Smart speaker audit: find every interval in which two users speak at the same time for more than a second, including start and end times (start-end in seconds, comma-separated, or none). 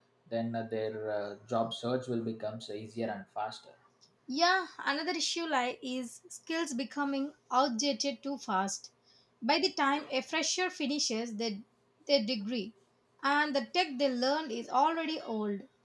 none